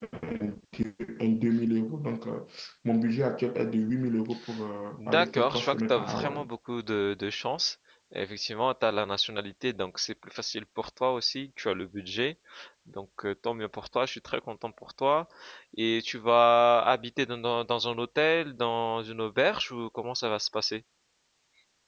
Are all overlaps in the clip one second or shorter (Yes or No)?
No